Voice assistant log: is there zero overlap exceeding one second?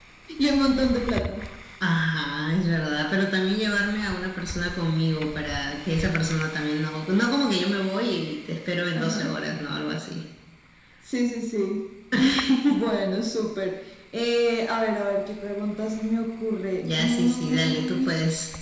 No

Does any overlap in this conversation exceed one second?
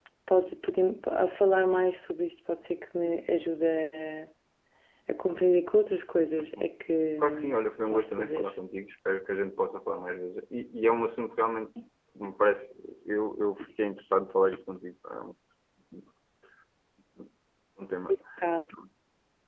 Yes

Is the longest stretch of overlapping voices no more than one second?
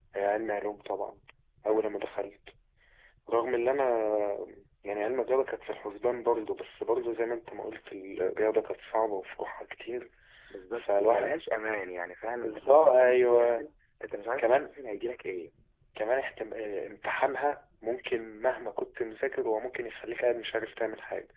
No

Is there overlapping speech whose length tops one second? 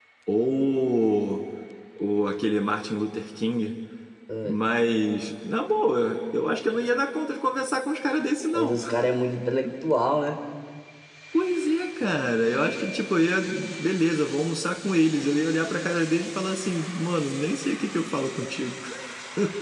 No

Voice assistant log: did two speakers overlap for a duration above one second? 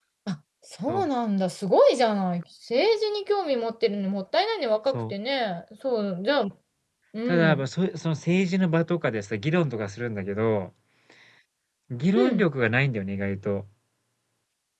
No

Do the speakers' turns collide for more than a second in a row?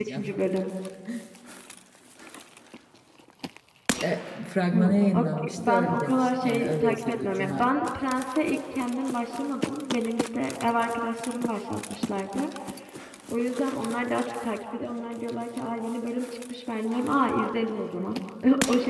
Yes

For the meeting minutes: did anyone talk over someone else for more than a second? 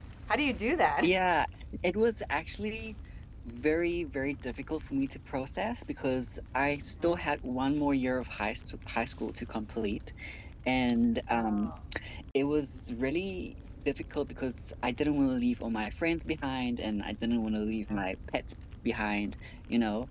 No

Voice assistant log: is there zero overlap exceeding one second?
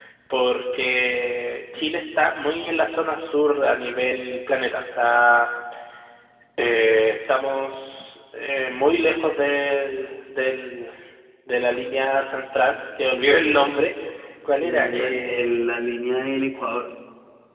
No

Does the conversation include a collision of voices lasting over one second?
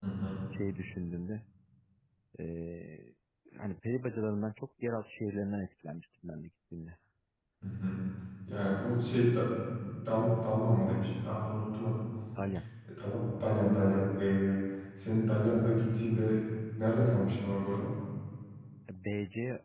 No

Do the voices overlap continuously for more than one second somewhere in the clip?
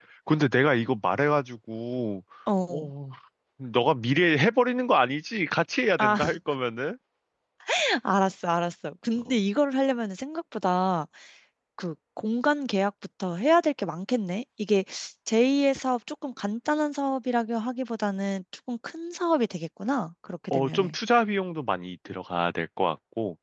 No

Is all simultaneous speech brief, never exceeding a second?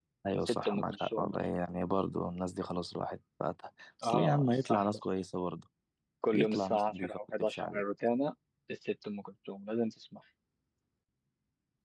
No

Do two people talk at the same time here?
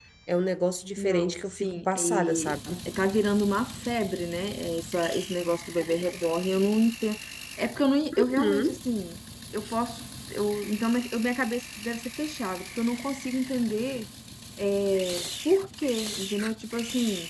Yes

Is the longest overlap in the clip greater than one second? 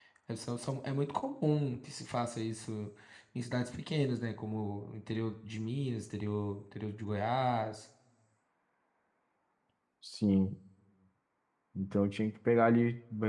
No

